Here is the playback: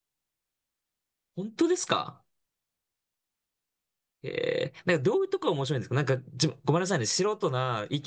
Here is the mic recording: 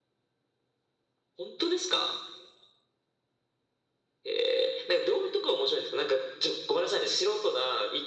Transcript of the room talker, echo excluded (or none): none